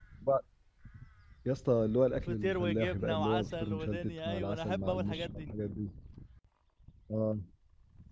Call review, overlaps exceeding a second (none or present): present